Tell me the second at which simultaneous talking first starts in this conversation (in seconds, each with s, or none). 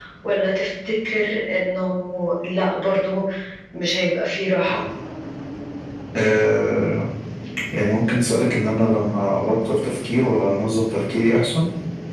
none